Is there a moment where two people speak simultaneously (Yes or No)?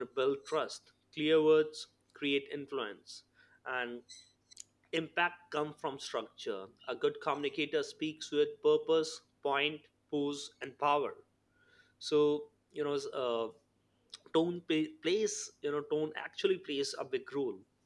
No